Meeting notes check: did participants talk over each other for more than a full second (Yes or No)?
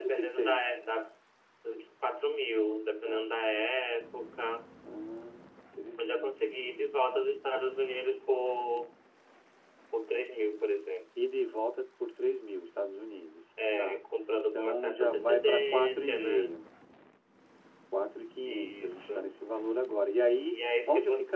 Yes